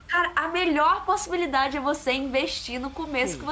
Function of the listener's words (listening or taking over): taking over